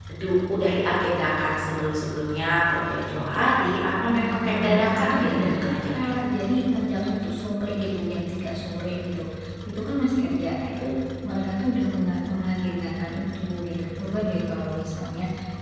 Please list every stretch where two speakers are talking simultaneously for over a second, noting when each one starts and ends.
4.1-6.1

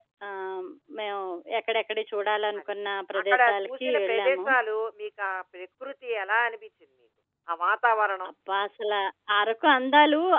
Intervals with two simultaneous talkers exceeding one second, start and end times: 3.2-4.5

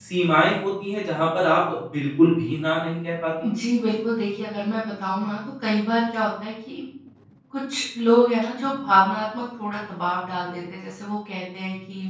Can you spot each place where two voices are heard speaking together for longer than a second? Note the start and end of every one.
none

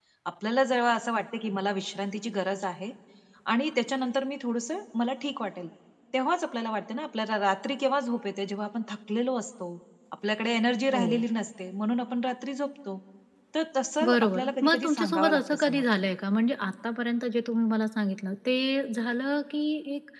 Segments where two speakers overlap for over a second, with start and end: 14.1-16.0

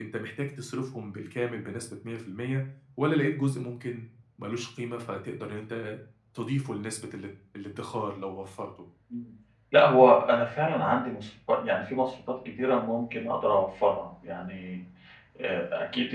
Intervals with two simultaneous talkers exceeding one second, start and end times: none

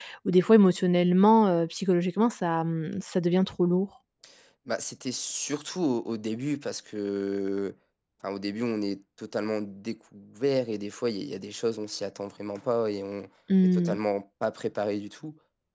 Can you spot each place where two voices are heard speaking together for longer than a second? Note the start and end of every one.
none

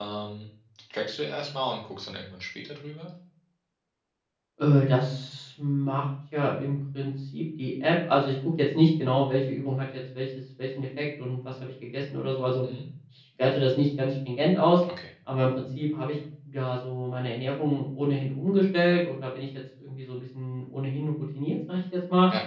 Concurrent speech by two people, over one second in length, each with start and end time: none

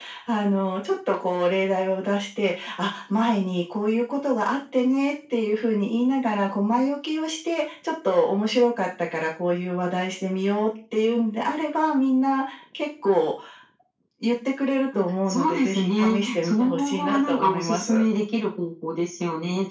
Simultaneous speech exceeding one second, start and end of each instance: 15.3-18.0

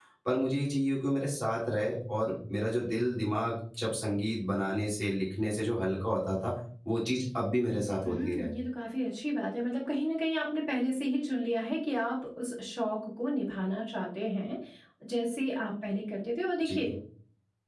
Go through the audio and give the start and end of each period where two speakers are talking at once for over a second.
none

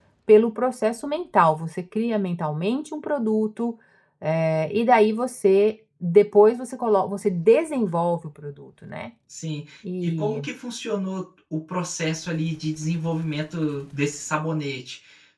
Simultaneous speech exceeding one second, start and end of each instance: none

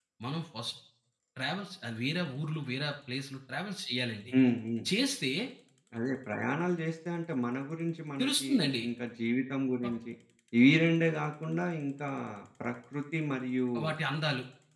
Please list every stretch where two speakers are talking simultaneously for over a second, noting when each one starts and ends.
none

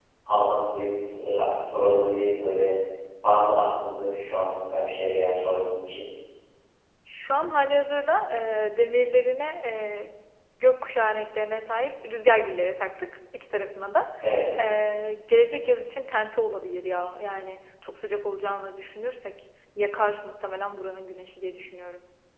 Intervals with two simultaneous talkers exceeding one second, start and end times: none

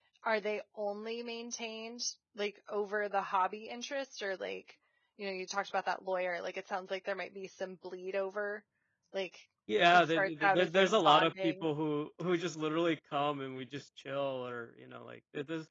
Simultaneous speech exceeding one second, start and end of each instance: 9.9-11.6

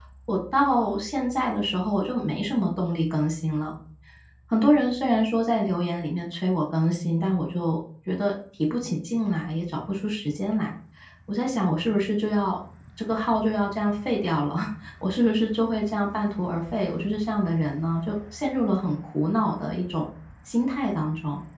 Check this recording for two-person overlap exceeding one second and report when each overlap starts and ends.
none

